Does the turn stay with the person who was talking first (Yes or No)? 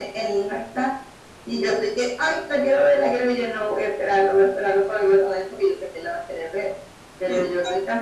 Yes